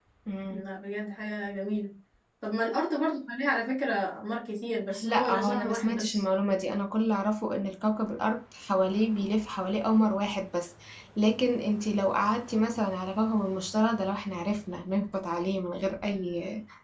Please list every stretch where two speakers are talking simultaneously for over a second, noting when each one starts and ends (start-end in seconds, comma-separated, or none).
5.0-6.2